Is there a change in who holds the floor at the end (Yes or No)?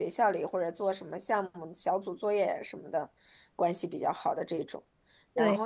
No